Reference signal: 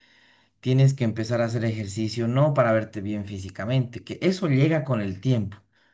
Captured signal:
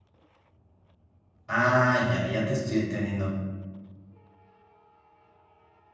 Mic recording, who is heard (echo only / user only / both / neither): user only